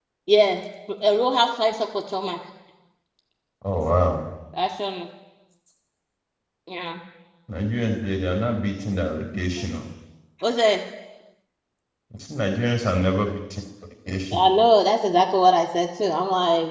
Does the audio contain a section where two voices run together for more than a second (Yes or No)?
No